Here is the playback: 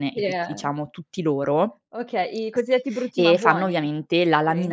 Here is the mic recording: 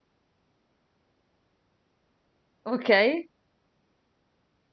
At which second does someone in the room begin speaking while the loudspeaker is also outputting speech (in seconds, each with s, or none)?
2.6 s